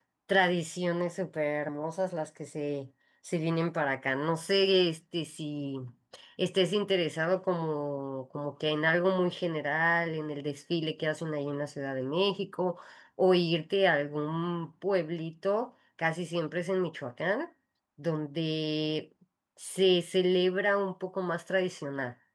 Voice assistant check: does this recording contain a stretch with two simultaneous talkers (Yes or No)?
No